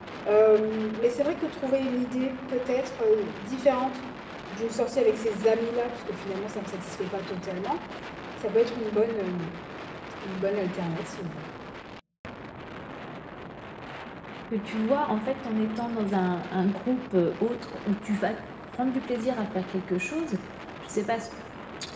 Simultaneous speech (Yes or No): No